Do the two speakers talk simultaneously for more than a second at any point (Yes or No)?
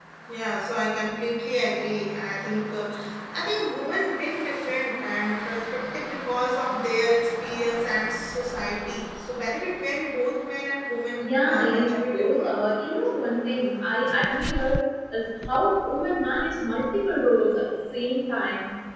Yes